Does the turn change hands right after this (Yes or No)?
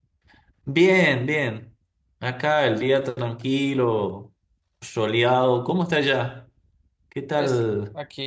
Yes